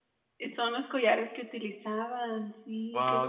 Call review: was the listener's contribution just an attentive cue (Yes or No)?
No